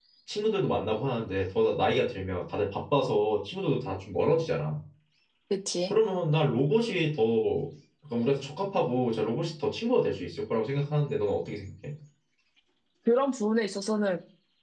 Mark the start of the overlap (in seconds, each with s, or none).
none